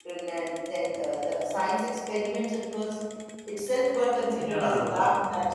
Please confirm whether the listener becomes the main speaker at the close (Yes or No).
No